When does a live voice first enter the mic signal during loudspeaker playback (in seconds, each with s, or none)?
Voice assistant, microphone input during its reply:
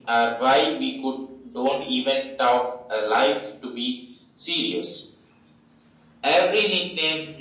none